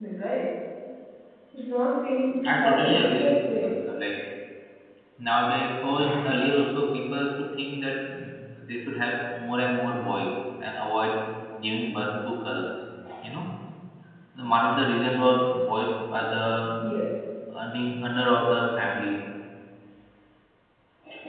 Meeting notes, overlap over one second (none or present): present